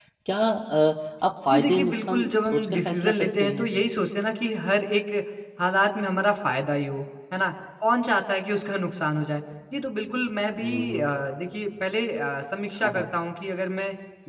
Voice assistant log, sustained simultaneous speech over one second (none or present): present